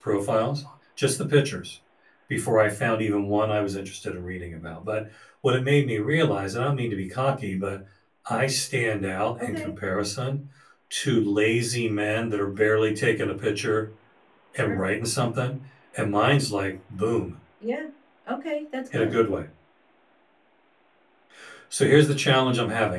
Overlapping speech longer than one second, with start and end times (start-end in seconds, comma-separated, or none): none